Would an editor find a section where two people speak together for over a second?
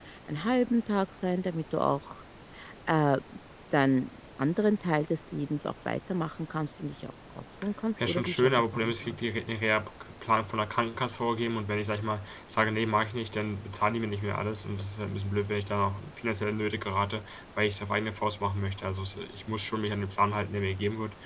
Yes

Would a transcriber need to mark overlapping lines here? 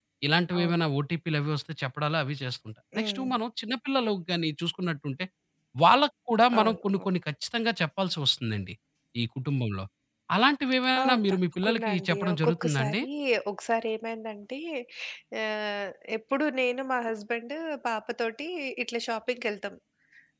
Yes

